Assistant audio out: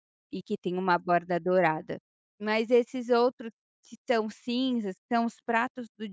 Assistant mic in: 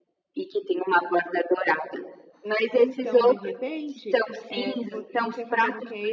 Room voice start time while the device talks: 2.8 s

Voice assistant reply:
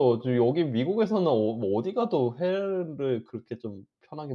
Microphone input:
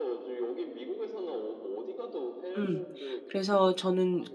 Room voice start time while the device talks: 2.5 s

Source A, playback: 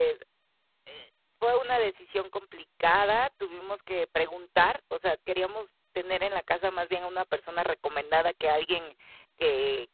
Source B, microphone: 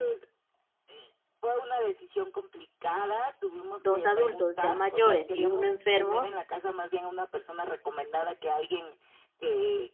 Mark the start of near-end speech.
3.8 s

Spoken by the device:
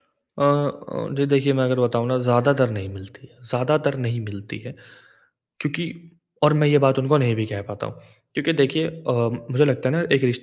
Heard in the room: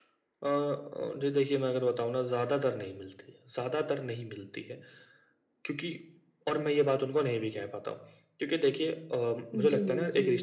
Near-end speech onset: 9.5 s

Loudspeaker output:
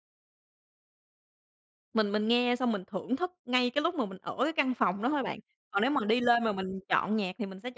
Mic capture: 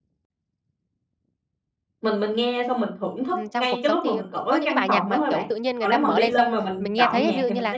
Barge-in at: 3.3 s

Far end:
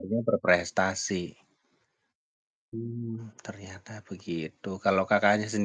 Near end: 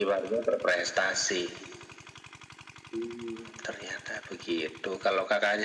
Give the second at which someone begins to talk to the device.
none

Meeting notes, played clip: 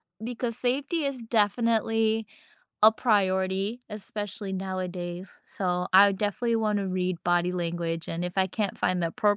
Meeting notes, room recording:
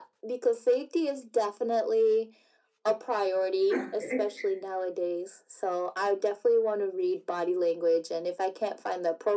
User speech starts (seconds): 3.7 s

